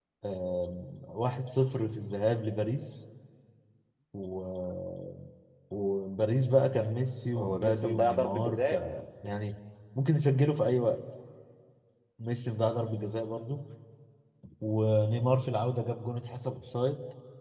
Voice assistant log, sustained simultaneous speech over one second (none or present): present